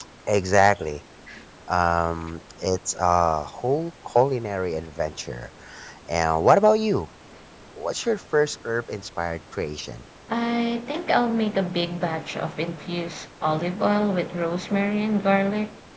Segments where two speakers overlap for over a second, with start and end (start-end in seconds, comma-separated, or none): none